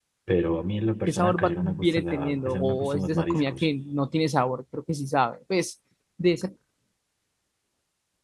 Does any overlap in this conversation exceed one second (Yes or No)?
Yes